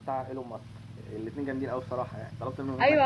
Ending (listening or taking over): taking over